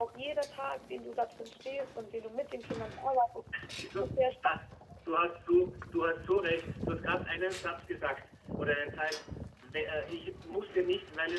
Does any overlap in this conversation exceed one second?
No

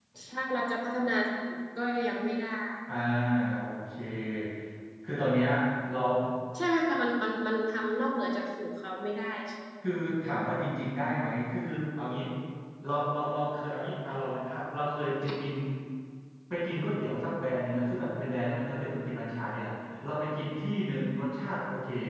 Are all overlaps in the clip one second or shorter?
Yes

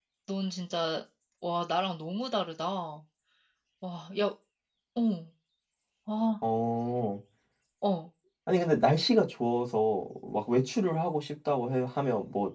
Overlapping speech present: No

